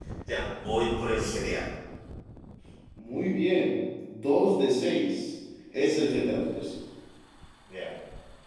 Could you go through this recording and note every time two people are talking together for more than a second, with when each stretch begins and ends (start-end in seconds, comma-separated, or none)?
none